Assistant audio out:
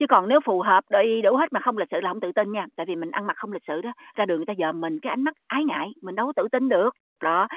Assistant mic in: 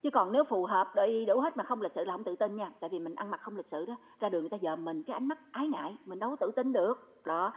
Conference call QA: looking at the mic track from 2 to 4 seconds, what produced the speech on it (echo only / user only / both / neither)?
echo only